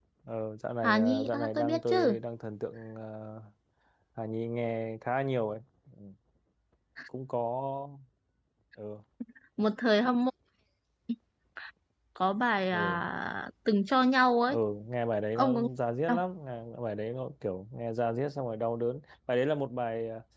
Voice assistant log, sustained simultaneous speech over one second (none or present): present